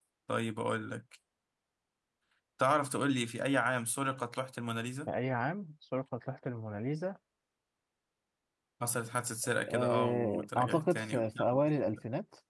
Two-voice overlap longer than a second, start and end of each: 9.7-11.4

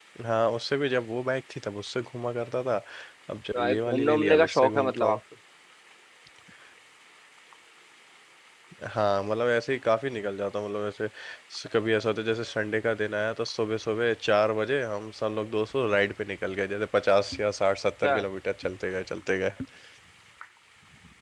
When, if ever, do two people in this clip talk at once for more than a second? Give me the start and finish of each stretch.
3.5-5.2

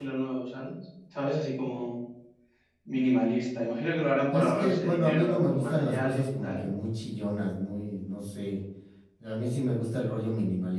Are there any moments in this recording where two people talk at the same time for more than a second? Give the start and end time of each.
4.3-6.7

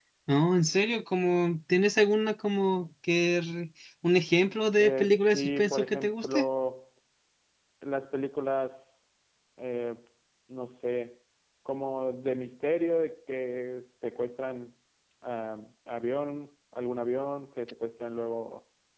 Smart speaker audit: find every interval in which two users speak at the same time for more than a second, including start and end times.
4.8-6.5

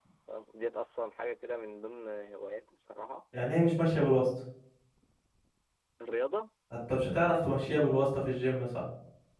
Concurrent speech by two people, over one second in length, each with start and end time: none

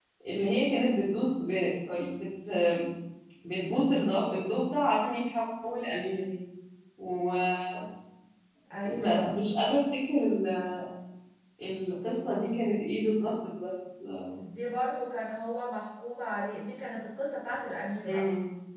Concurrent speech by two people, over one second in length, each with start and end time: none

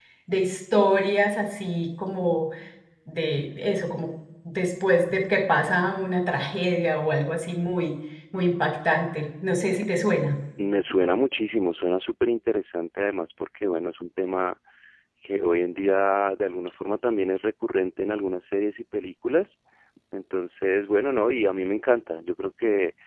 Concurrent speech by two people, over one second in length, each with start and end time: none

